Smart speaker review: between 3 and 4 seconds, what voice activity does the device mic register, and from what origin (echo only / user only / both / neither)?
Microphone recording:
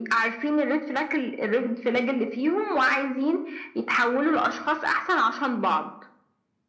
echo only